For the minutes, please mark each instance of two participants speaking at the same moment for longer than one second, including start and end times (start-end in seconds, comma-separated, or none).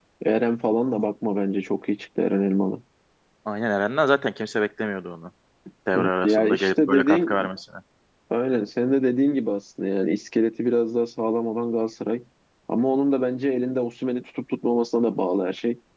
6.0-7.5